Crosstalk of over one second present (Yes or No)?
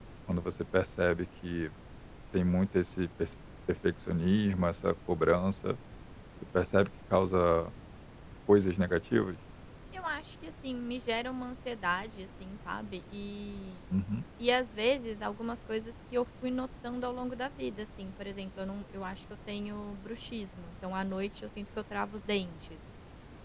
No